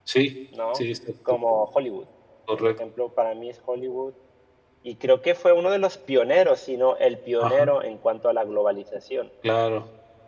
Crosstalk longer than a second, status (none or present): none